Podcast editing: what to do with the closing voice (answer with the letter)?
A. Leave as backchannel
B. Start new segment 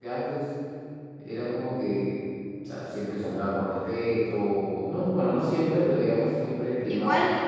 B